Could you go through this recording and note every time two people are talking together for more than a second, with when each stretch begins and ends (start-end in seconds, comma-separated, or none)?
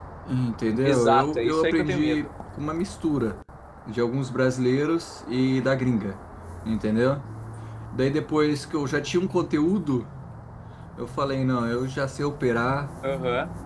0.8-2.3